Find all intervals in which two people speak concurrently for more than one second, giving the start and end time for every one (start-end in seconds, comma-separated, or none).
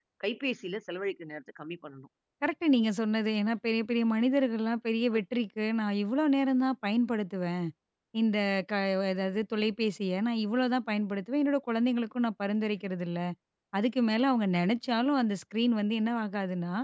none